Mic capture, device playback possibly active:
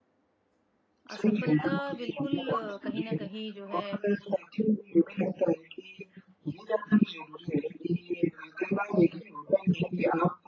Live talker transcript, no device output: असफलता बिल्कुल अ, कहीं न कहीं जो है

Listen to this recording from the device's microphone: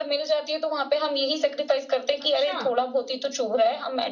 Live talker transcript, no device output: अच्छा।

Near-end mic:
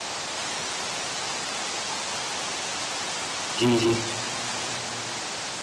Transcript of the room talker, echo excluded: जी, जी।

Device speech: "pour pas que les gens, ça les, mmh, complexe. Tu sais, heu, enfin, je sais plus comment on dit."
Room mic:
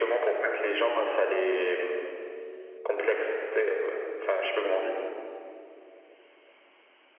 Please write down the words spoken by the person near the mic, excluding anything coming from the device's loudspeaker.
none

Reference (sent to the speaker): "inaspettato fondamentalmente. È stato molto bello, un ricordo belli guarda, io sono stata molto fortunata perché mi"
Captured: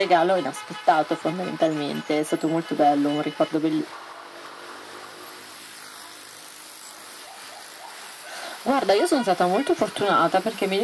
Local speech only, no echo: none

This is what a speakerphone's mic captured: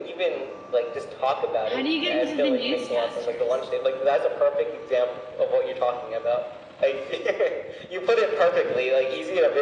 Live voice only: how do you get into the newscasters?

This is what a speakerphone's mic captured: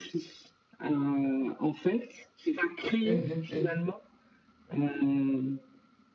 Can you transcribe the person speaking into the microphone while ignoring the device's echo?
Mmh mh. Mmh

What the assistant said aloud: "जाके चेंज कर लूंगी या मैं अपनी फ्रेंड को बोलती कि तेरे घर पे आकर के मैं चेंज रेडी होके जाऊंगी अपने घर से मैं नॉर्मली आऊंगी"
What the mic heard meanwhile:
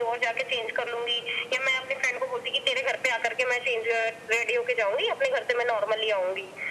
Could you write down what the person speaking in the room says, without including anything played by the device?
none

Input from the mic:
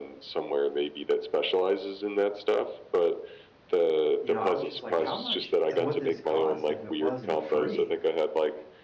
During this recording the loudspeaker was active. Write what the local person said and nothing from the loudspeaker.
you know, I was just like, "How much would this cost if it wasn't free?"

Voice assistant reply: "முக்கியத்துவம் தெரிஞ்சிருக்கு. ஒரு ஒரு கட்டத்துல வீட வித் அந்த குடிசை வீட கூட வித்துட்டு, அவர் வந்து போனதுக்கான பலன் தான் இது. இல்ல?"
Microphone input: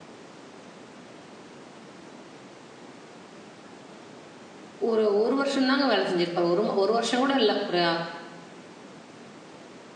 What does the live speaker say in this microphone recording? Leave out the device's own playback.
ஒரு 1 வருஷம் தாங்க வேலை செஞ்சிருப்பாரு. ஒரு ம 1 வருஷம் கூட இல்ல. ஒரு

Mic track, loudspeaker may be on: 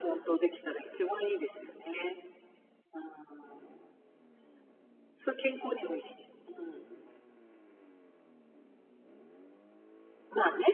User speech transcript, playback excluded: none

